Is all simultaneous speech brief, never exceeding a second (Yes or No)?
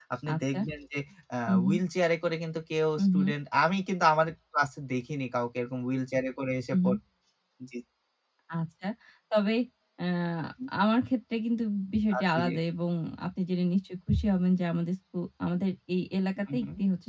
Yes